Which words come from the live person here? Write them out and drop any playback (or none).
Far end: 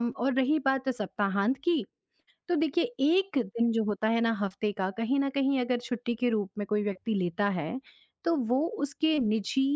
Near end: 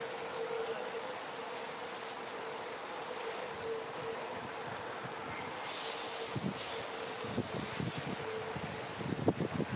none